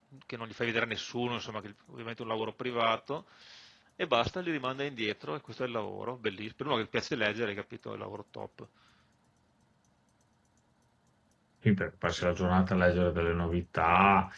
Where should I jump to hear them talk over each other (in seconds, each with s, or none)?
none